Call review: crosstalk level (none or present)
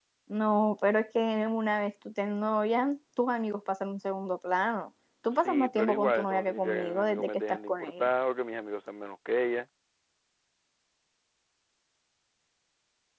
present